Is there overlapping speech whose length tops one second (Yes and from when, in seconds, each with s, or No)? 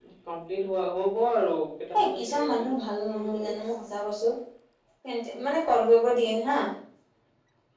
Yes, from 1.9 s